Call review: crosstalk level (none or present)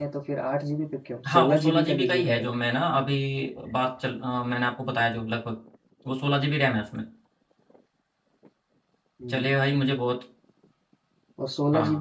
present